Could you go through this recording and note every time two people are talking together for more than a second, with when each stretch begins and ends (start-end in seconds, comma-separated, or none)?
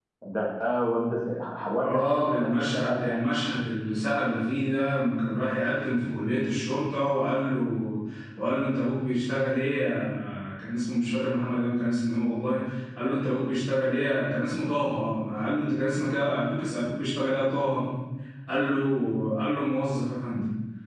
1.8-3.1